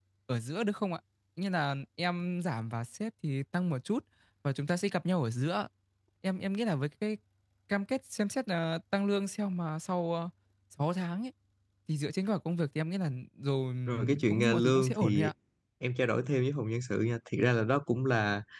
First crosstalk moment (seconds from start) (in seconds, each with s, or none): 13.9 s